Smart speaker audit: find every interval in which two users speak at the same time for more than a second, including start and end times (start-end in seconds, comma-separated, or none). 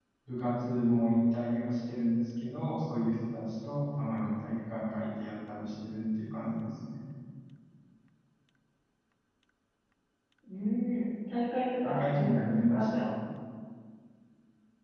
11.8-13.1